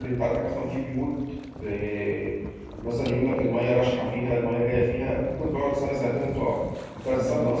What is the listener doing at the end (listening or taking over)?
listening